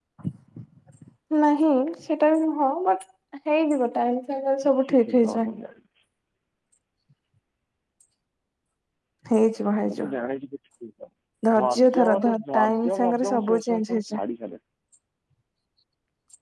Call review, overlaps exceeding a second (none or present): present